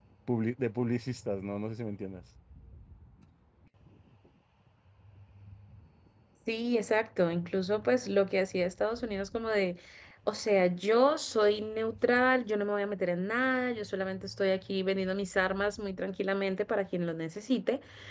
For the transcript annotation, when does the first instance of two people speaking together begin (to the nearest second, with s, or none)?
none